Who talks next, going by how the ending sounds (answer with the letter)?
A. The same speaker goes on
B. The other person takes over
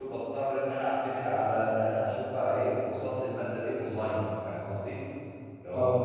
A